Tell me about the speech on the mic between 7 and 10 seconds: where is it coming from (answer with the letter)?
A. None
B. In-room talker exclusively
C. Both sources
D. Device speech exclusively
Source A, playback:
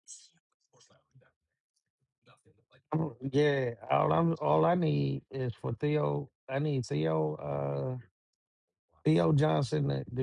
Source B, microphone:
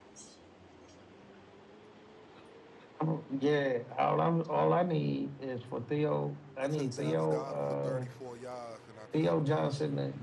C